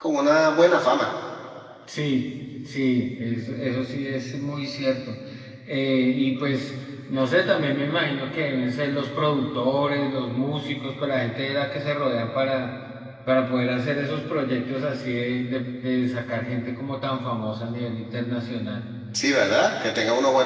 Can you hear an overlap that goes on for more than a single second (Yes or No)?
No